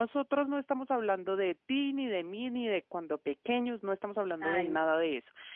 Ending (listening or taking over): listening